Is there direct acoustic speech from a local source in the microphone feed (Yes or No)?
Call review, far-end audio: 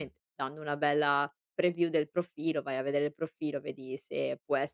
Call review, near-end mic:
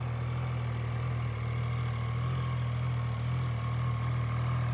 No